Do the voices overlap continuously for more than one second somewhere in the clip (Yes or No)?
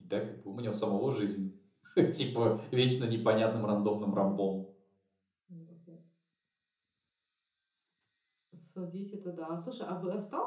No